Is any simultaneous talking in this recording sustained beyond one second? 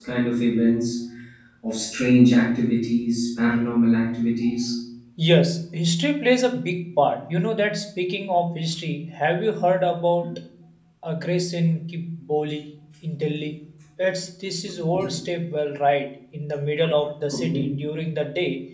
No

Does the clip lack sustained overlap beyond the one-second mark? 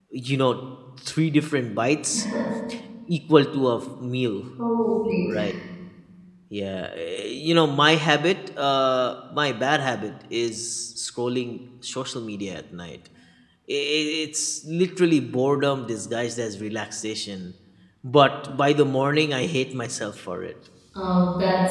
Yes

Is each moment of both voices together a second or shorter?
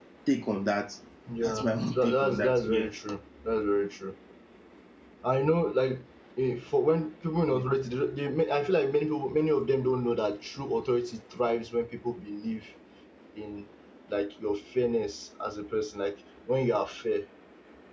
No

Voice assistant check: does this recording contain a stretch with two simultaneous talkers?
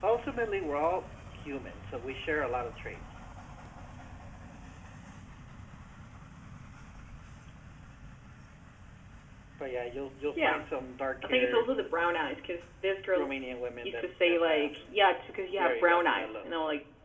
Yes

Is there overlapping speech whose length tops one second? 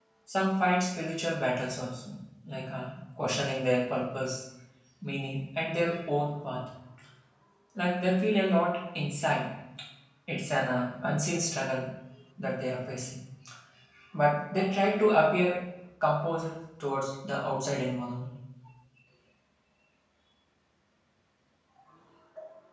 No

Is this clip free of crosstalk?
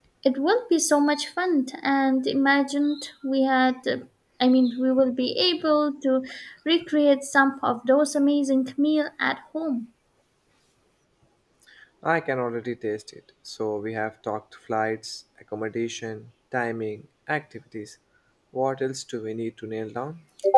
Yes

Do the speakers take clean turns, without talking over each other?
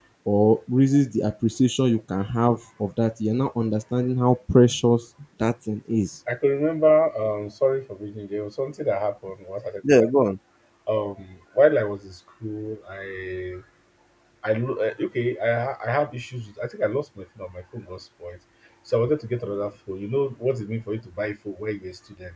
Yes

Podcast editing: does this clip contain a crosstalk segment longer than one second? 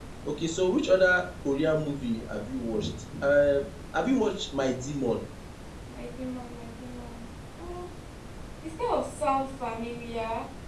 No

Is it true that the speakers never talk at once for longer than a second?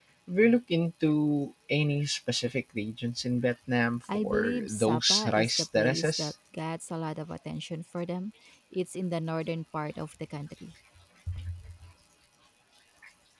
No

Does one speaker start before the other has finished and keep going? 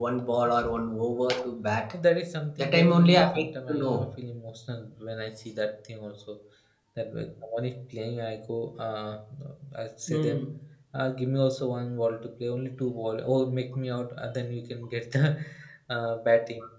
Yes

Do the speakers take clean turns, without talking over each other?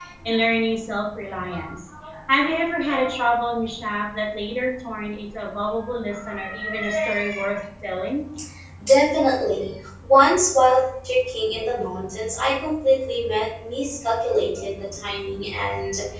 Yes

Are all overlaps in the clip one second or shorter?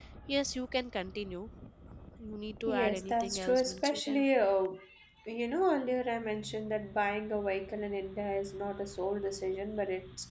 No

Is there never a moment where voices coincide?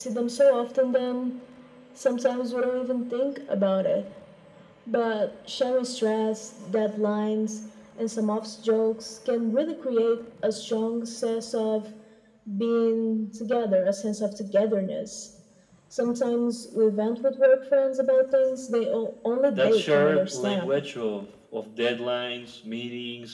No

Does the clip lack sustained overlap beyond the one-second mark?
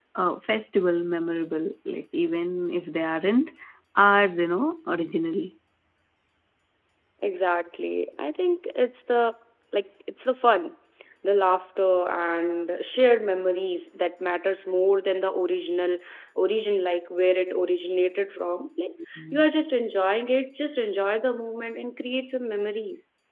Yes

